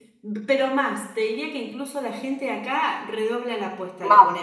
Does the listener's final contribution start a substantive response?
No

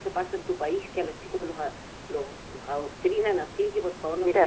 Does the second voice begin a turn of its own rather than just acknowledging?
Yes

